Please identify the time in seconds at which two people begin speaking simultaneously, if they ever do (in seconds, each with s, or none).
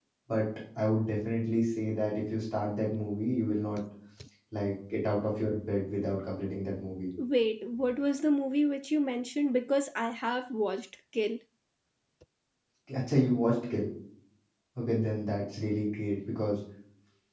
none